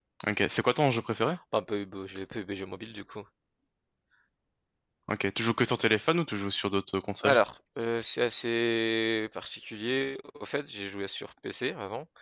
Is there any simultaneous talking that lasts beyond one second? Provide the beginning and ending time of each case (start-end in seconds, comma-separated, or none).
none